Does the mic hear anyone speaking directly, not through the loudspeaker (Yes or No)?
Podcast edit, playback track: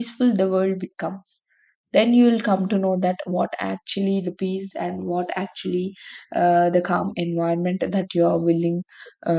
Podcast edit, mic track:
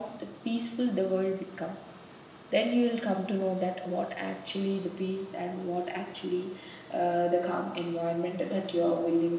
No